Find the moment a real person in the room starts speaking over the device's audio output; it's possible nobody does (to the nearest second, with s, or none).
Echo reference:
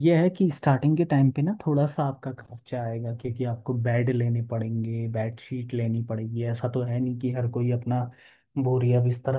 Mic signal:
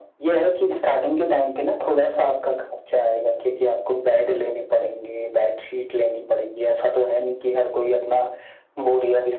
none